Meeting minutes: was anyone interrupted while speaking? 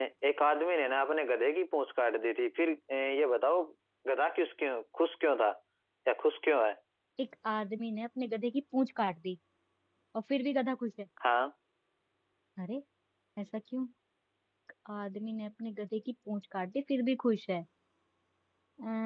No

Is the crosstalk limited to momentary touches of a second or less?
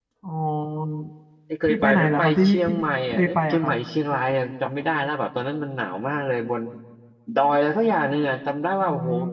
No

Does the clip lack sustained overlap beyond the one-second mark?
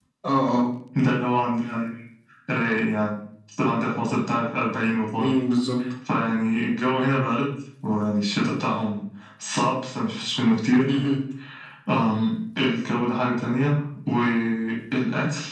Yes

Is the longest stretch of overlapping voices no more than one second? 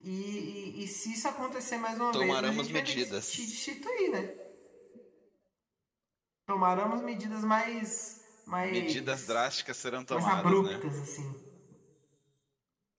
No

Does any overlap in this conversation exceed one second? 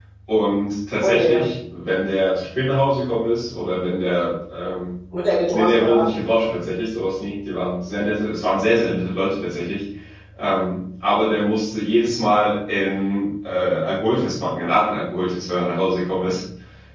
No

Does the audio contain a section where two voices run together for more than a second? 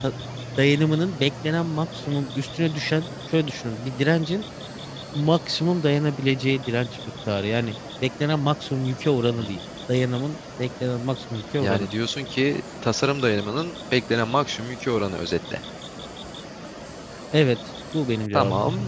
No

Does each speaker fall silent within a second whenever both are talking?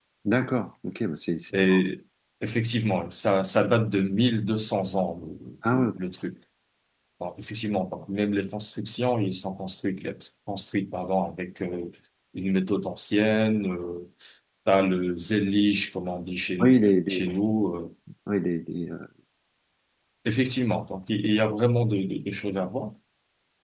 Yes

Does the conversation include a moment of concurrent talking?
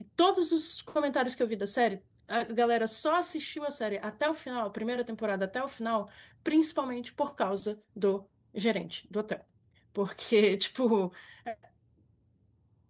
No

